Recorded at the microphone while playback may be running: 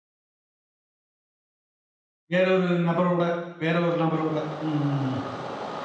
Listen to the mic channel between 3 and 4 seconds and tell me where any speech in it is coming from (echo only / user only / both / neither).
user only